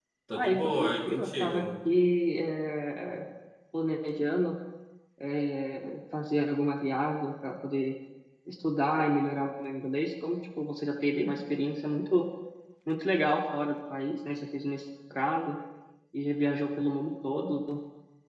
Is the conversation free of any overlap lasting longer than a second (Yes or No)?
No